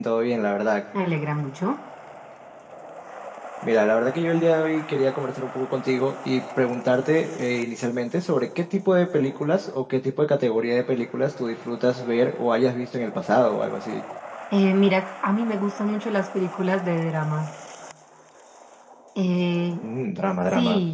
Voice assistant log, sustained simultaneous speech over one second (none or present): none